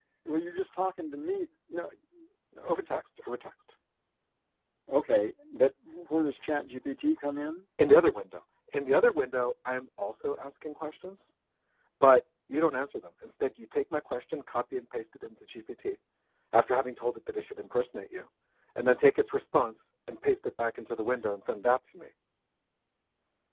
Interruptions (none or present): none